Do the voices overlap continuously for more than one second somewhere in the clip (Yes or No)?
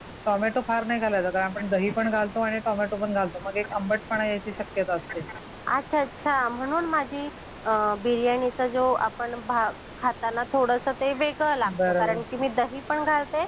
No